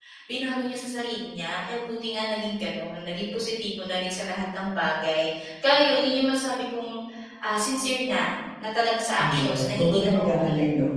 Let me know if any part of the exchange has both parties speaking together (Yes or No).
Yes